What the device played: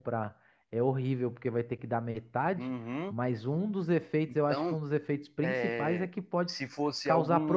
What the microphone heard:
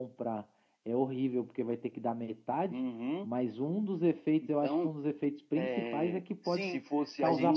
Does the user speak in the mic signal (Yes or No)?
Yes